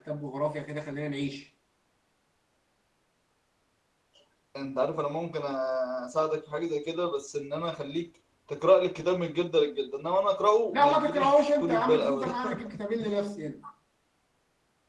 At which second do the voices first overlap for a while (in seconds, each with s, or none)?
10.7 s